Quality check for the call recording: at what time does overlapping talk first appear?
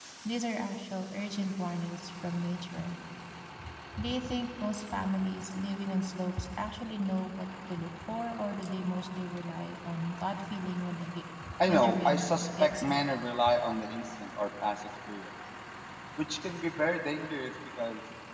11.6 s

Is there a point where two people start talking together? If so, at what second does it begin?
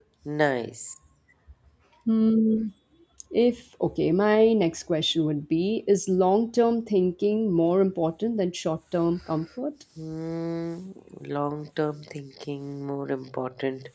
none

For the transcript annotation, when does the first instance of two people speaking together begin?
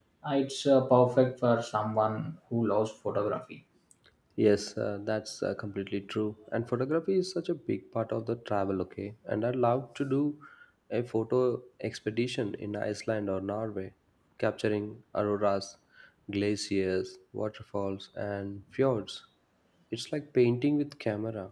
none

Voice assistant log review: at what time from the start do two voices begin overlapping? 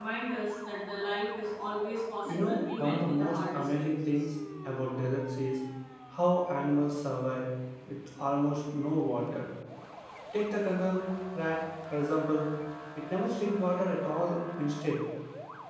2.2 s

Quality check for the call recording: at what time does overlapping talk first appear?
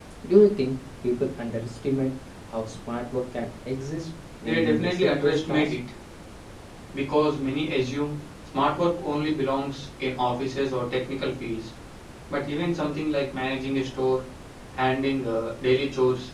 4.4 s

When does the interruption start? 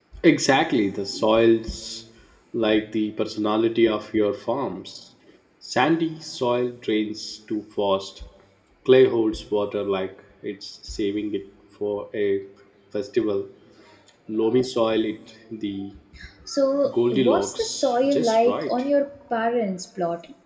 16.9 s

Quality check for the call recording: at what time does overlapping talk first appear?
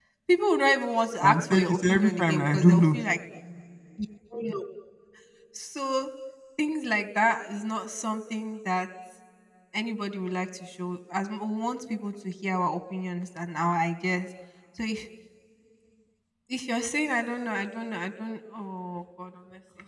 1.2 s

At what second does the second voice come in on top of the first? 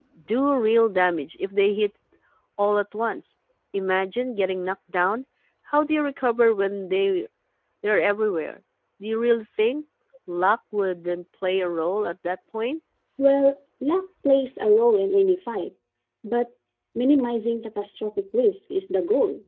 none

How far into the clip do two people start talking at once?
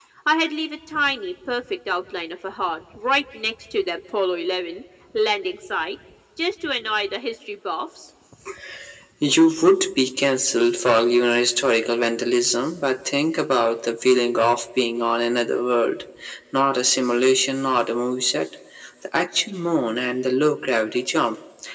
none

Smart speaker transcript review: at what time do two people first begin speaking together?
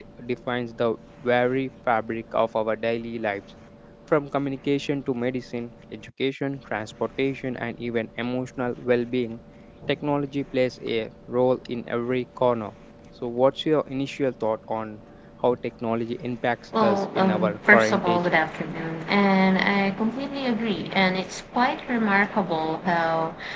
16.7 s

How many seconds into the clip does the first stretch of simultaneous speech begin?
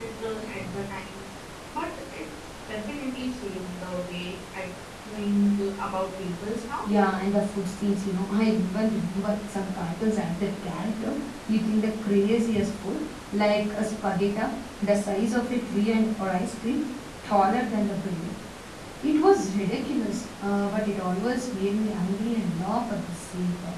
none

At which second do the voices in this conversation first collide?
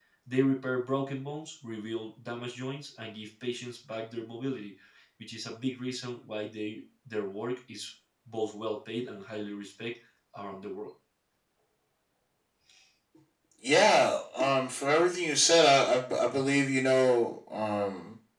none

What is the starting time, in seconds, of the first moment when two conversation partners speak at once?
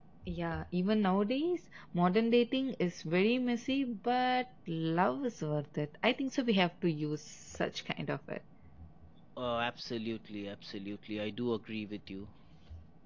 none

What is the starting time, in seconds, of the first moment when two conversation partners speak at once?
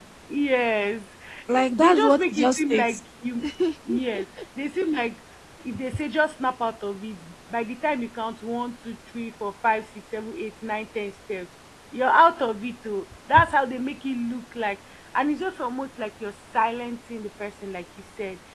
1.7 s

